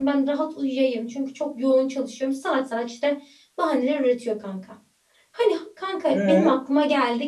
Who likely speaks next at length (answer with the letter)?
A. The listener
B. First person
B